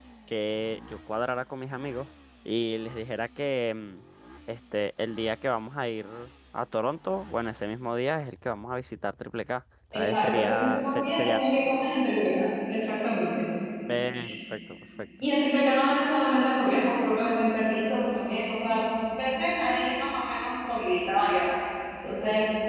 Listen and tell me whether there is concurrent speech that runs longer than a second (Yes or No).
Yes